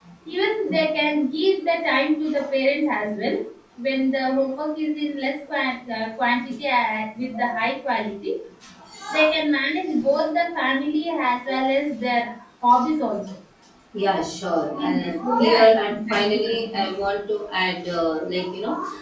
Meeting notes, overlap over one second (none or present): present